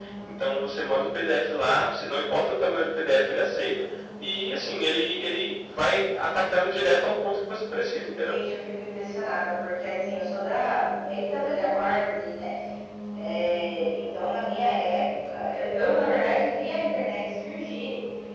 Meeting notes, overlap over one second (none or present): none